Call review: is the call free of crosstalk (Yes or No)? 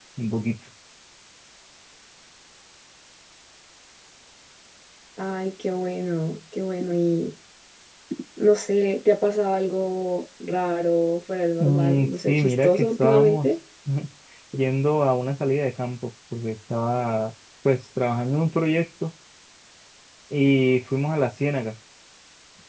No